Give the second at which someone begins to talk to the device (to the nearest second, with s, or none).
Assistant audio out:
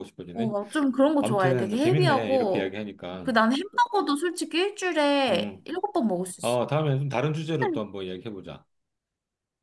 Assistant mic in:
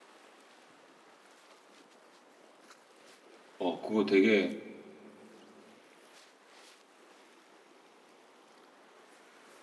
4 s